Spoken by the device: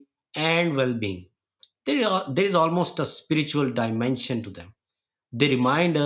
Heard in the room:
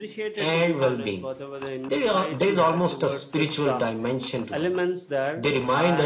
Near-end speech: present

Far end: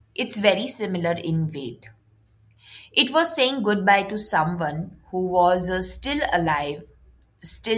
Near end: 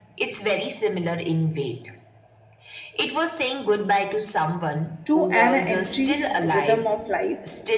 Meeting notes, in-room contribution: present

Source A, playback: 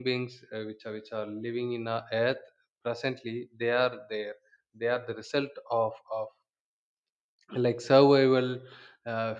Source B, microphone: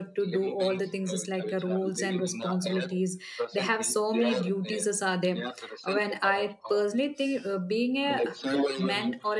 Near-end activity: present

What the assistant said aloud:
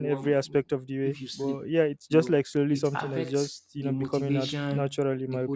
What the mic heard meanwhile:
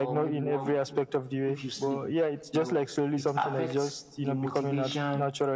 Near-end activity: none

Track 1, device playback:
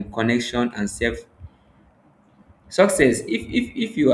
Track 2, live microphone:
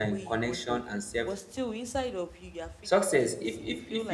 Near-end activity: present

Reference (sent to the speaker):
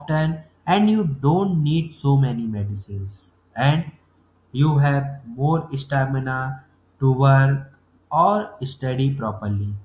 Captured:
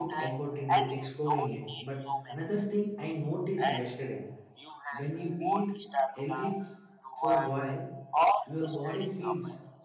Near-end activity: present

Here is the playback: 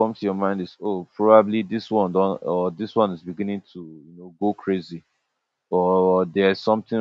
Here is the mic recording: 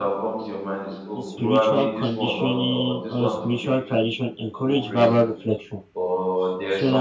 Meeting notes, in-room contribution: present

